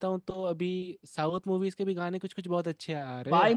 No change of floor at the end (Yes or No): No